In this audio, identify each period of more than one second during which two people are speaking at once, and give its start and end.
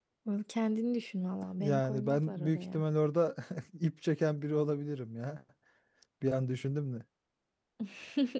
1.6-2.8

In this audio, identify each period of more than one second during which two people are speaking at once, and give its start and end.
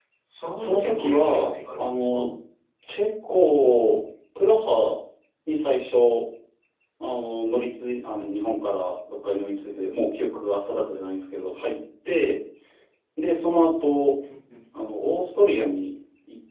0.6-2.3

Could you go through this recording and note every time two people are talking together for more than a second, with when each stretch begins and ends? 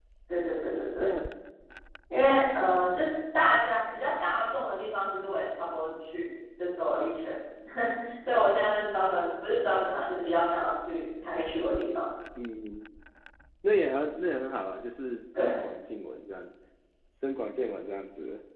none

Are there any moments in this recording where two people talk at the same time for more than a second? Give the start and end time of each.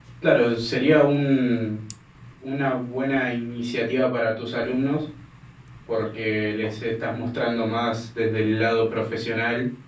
none

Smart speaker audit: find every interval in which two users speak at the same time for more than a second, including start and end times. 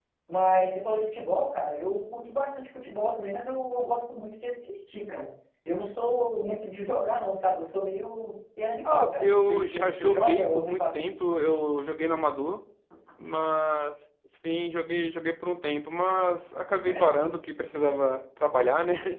8.9-11.1

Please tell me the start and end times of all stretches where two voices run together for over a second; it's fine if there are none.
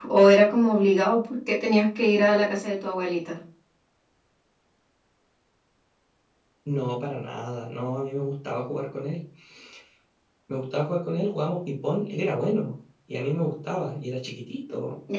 none

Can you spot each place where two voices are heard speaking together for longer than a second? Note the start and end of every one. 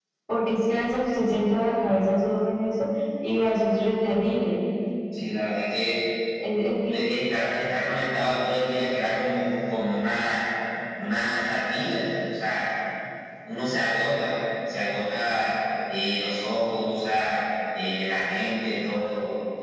none

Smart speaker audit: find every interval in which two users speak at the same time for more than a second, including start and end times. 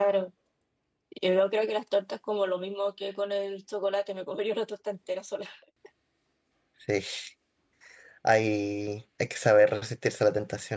none

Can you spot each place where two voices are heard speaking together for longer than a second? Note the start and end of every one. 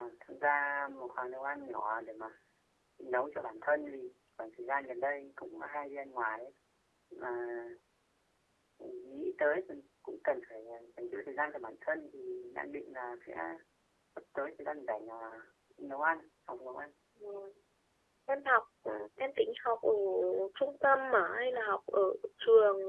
none

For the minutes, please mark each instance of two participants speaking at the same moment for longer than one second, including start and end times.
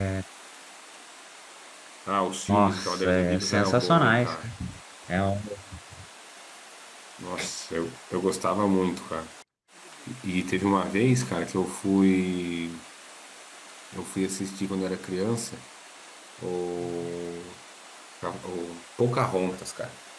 2.5-4.4

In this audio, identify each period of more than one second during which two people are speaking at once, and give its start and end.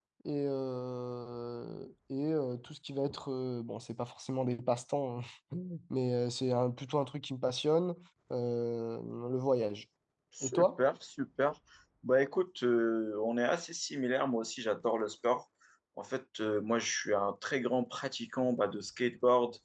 none

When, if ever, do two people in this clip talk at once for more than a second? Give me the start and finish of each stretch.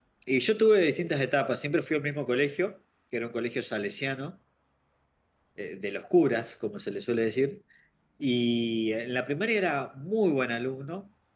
none

